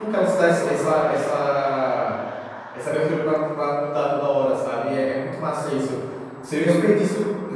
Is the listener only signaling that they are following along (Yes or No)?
Yes